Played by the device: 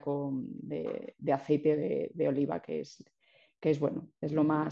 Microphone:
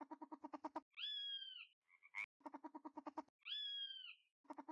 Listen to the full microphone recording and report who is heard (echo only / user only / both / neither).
neither